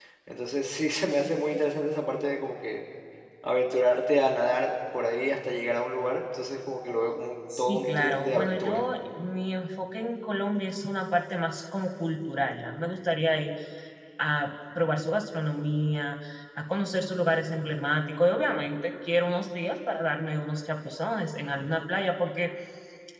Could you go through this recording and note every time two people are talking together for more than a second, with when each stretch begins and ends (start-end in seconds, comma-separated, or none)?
7.6-8.8